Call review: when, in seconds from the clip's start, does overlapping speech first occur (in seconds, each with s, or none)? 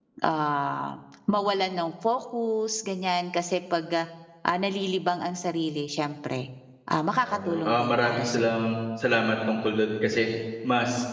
7.3 s